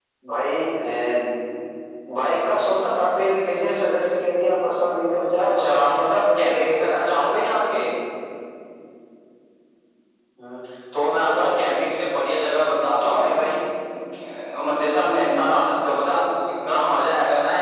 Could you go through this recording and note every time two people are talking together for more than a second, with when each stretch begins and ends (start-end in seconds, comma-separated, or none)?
5.4-7.0